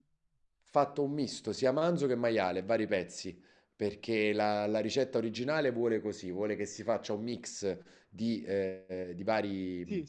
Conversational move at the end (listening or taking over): listening